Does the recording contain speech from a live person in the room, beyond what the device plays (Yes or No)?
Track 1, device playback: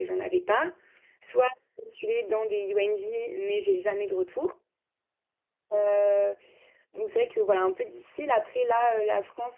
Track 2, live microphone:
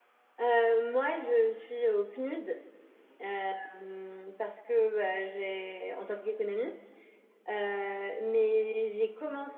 Yes